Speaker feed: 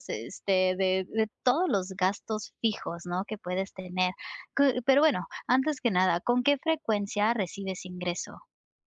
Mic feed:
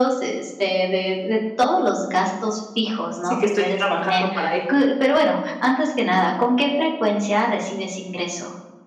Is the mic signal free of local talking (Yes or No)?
No